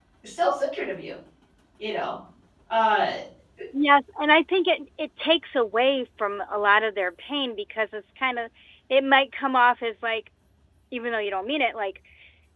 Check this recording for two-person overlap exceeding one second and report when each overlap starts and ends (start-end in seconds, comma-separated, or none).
none